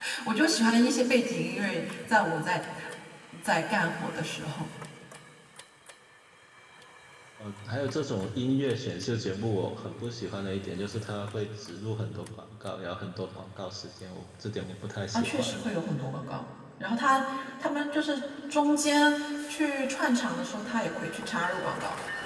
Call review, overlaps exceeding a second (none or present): none